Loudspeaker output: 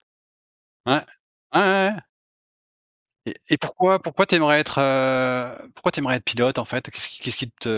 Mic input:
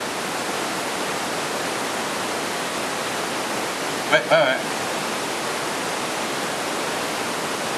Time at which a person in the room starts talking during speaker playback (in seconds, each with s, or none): 4.1 s